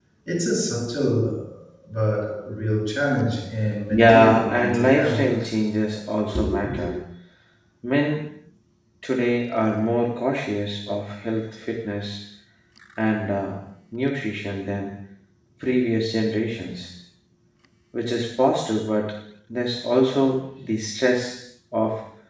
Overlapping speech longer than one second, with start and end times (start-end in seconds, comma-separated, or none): 3.9-5.3